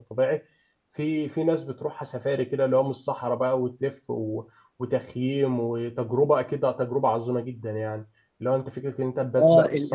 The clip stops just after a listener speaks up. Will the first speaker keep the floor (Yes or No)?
No